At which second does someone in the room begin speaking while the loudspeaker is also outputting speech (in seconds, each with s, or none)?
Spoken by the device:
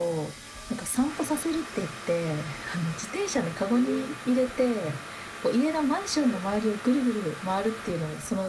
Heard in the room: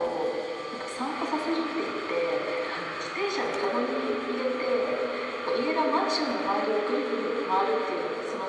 none